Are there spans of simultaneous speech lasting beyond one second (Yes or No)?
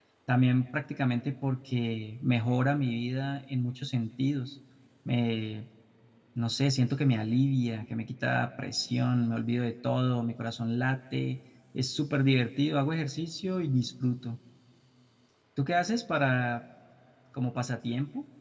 No